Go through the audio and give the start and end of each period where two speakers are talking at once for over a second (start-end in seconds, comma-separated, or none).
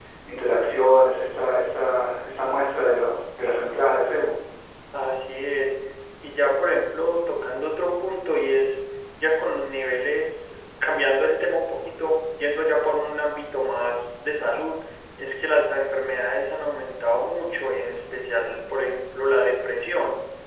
none